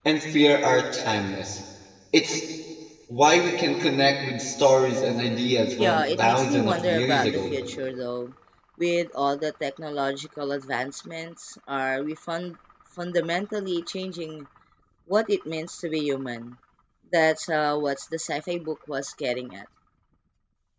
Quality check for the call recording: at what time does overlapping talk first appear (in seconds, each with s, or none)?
5.8 s